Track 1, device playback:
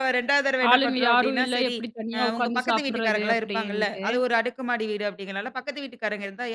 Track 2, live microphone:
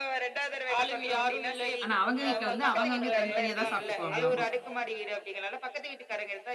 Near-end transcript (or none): ஆனா அவங்க வீட்ல வந்து அவங்கவங்க தனித்தனியா தான் சாப்பிட்டுக்குவாங்களாமா.